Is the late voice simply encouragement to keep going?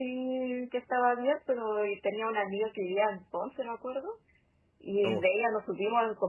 Yes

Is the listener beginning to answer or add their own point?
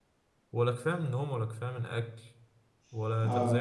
No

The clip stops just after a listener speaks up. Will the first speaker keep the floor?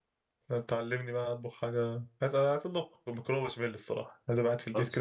Yes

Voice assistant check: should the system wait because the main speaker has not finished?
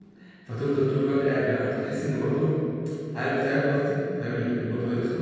No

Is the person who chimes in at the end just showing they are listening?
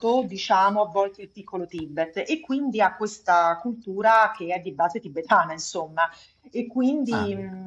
Yes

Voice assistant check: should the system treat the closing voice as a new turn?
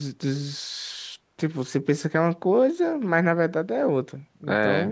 Yes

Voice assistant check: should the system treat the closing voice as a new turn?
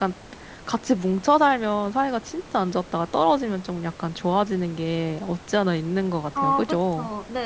Yes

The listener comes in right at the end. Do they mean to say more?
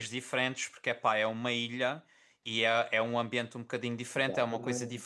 No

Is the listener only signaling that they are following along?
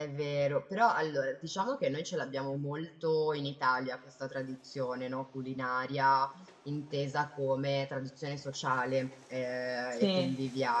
Yes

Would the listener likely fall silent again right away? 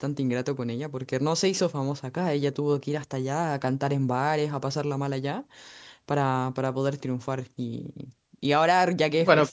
Yes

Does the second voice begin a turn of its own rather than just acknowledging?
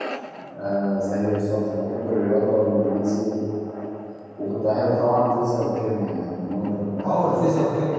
Yes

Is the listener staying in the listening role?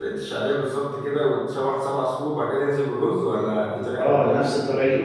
No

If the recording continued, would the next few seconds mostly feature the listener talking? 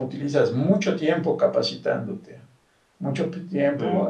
No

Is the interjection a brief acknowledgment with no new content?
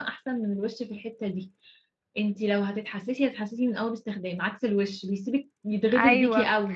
No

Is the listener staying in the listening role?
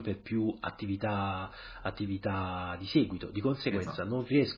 Yes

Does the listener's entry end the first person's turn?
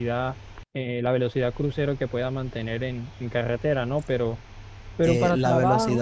Yes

